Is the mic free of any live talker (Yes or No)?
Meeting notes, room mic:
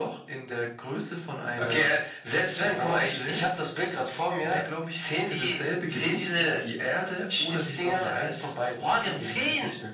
Yes